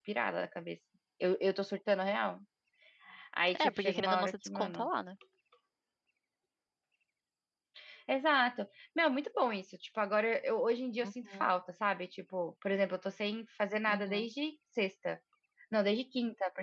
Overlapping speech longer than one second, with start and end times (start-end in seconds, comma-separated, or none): 3.5-4.8